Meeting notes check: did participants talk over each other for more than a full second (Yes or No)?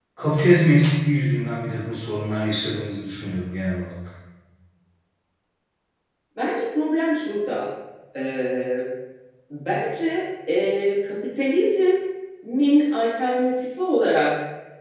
No